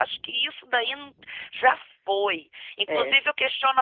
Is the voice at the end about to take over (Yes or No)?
No